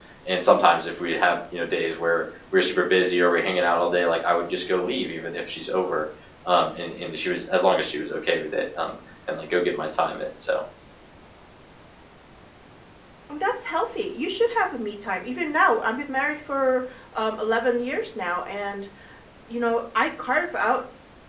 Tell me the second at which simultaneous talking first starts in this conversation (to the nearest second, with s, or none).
none